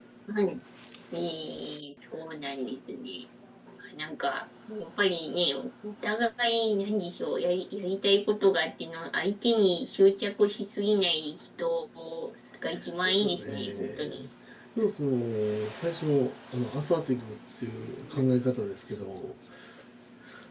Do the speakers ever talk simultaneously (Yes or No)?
Yes